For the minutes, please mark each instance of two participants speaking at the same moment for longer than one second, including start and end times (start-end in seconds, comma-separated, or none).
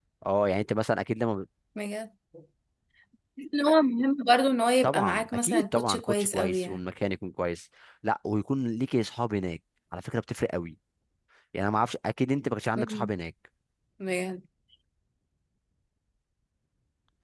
4.8-6.8